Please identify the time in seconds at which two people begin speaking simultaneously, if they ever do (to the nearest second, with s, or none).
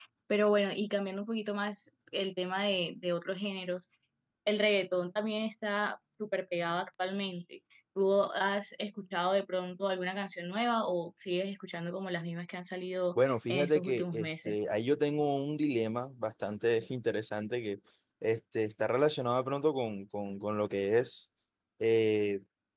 13 s